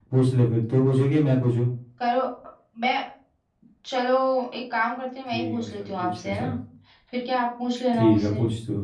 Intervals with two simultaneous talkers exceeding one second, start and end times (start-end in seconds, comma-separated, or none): 5.3-6.5